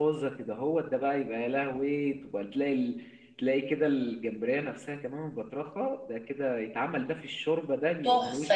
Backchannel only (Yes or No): No